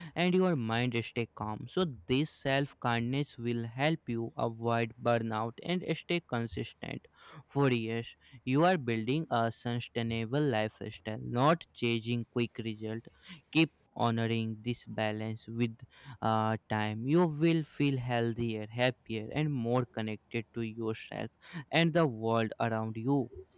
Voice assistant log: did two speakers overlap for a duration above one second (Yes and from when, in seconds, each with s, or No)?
No